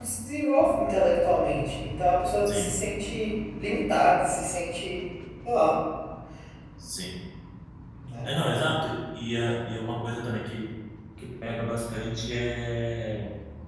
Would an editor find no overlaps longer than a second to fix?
Yes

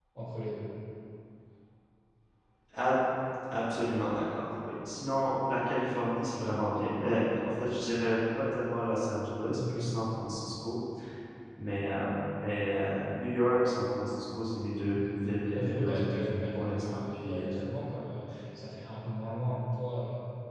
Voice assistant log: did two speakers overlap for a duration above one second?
Yes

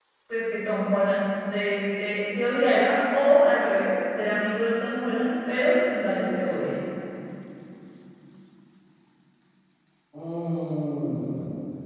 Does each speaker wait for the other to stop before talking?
Yes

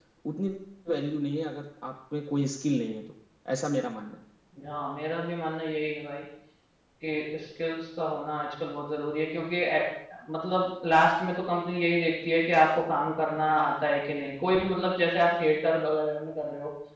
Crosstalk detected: No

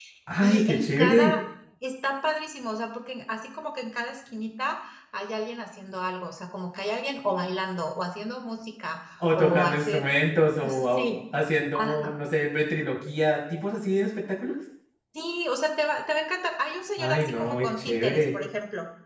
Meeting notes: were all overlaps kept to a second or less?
No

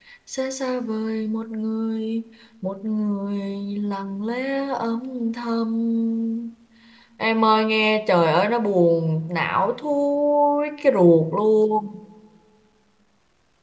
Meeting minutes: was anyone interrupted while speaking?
No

